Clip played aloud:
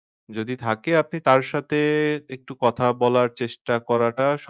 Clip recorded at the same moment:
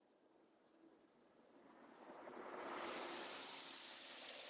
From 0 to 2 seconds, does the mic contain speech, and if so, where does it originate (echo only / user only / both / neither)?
neither